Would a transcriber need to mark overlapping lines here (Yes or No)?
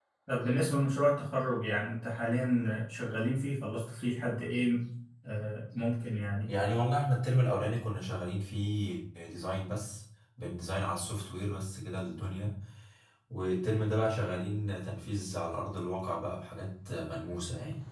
No